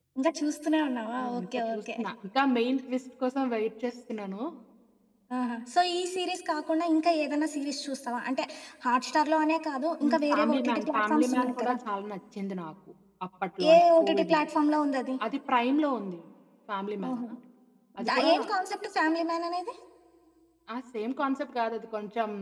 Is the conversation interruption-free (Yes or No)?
No